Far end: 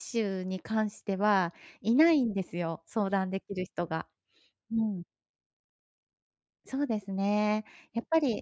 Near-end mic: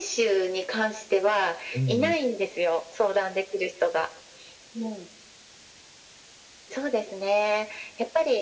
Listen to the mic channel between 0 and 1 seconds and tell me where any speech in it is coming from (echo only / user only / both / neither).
echo only